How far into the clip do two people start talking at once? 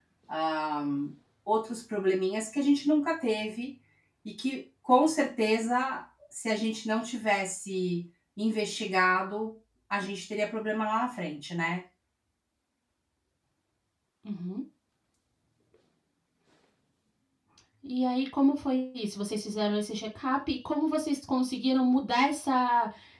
none

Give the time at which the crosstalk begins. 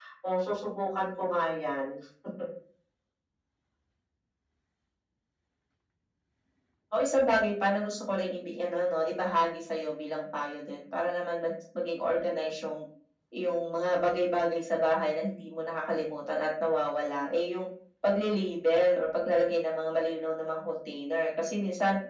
none

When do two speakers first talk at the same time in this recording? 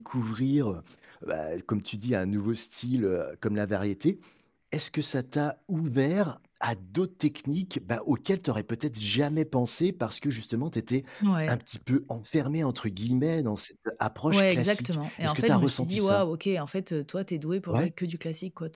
14.3 s

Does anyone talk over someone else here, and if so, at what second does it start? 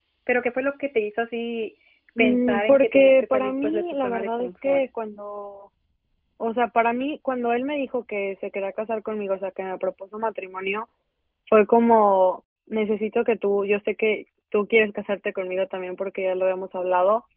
2.2 s

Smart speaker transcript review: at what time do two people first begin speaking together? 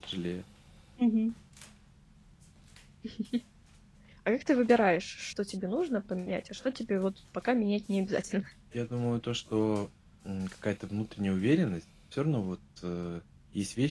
none

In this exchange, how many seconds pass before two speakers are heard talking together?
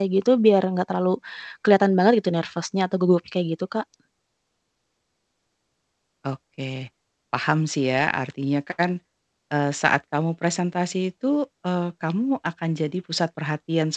none

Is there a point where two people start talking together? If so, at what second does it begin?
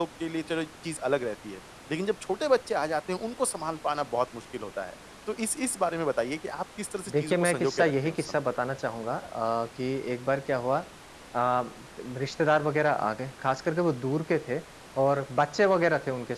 7.1 s

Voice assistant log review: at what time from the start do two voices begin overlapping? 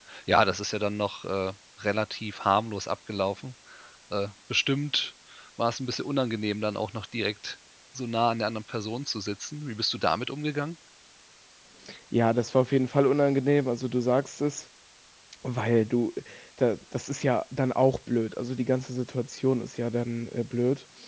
none

